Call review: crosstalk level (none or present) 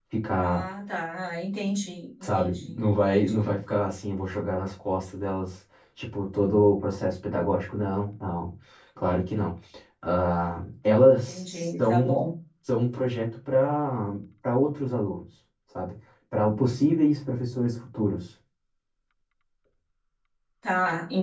present